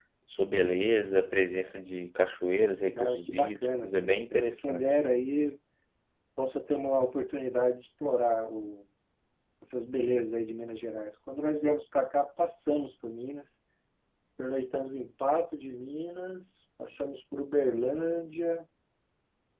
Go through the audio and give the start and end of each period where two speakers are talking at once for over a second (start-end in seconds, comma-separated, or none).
3.0-5.0